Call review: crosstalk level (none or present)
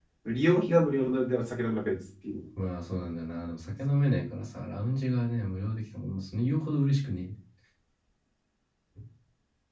none